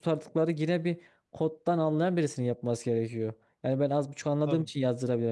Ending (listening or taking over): listening